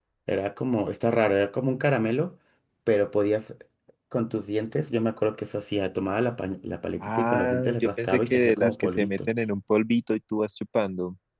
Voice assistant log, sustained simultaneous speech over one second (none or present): present